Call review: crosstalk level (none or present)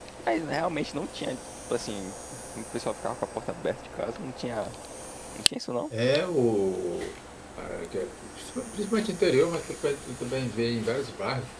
none